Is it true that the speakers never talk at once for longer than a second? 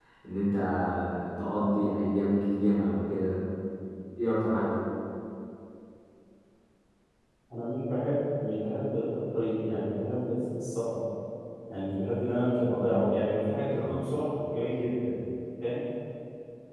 Yes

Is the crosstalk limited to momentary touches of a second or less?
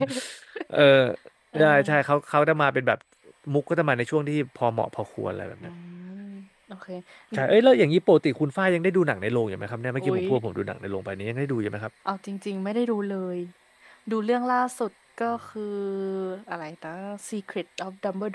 Yes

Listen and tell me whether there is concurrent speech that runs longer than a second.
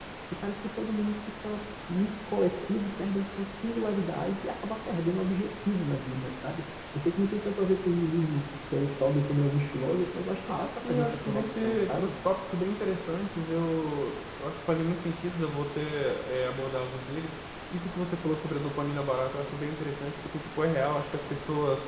Yes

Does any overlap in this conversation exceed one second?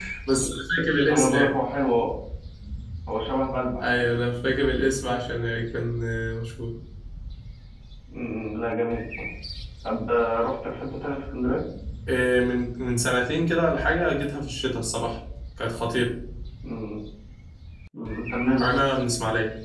No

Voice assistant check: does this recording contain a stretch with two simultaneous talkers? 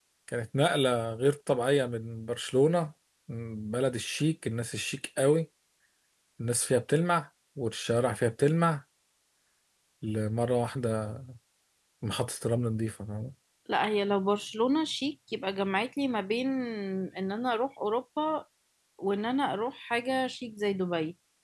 No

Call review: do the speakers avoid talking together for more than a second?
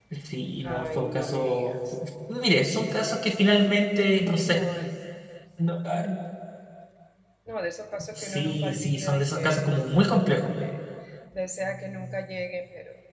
No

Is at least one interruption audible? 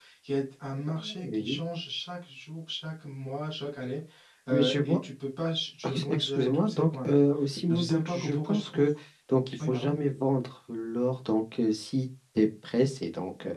Yes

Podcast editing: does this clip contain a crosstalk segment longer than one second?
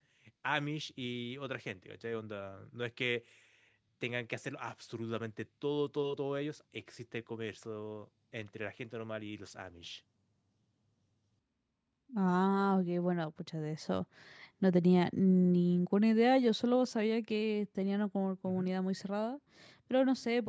No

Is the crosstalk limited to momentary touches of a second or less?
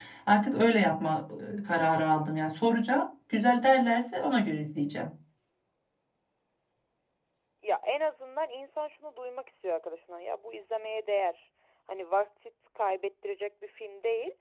Yes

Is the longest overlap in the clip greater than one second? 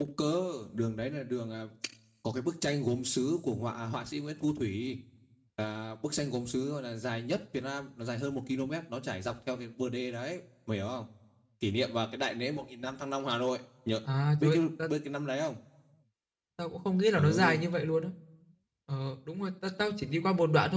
No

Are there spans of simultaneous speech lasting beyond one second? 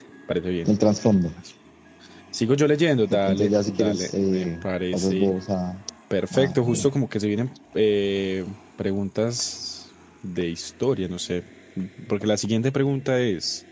Yes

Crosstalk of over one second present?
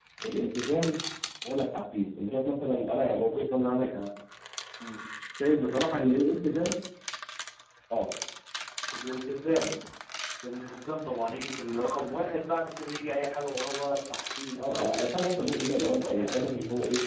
Yes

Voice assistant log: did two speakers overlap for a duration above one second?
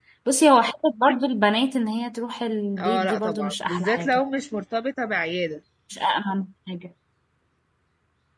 Yes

